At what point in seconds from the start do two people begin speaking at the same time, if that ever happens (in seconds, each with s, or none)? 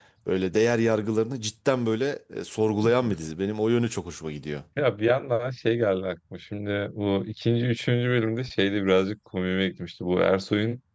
none